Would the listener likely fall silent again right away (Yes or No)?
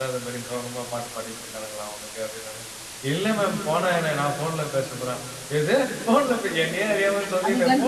Yes